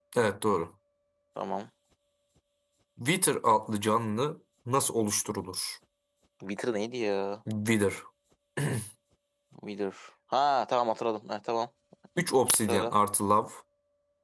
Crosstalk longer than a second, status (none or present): none